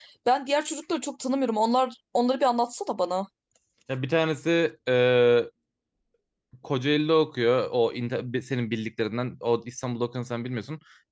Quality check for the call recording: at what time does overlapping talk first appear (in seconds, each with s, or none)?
none